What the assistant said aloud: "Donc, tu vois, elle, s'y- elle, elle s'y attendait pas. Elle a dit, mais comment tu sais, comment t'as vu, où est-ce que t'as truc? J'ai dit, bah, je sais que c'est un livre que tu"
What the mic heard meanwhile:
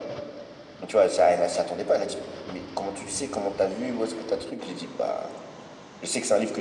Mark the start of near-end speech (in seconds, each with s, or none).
none